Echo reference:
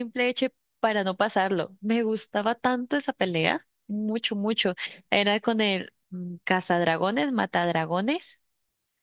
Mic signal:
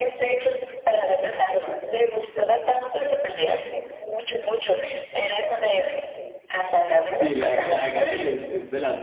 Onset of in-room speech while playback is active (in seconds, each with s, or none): 7.2 s